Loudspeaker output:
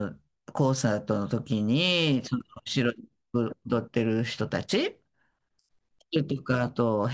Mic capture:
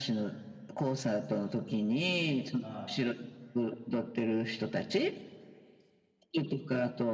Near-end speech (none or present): present